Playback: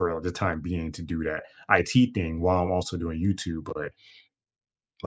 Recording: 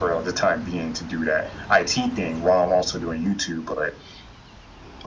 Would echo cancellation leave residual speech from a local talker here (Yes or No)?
No